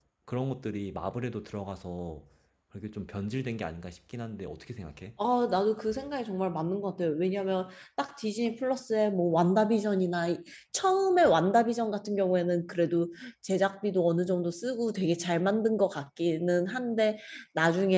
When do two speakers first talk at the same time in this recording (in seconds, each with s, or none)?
none